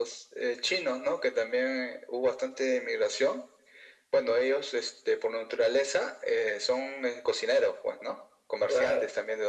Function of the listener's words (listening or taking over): listening